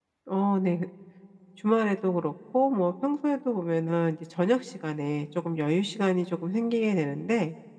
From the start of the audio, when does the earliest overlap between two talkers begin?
none

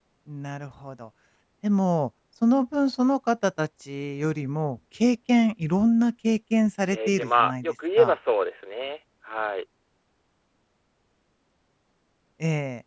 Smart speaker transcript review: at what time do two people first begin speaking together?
6.9 s

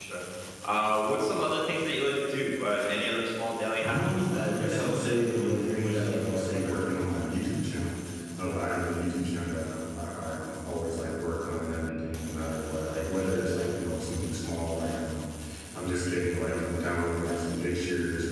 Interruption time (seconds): 3.8 s

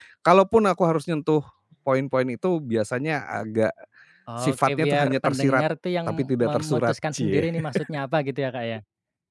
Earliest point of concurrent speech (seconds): 4.4 s

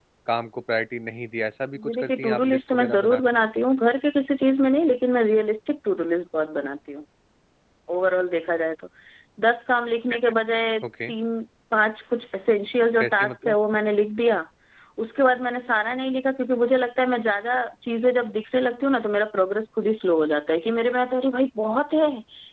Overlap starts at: 1.8 s

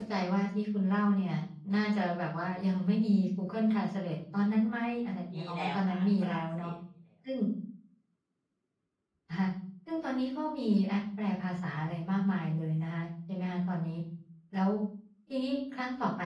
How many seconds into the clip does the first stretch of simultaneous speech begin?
5.3 s

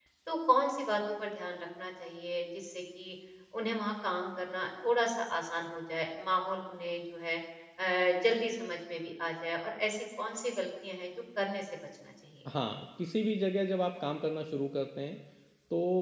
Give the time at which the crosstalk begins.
none

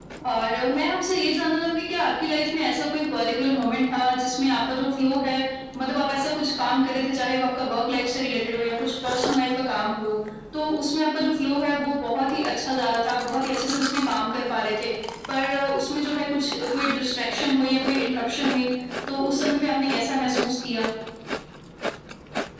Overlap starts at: none

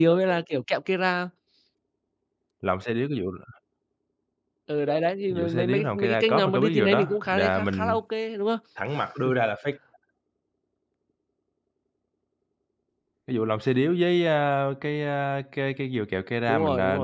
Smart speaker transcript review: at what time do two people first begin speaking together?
5.4 s

